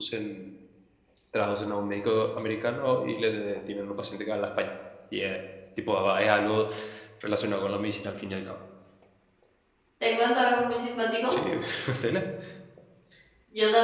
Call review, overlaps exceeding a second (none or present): none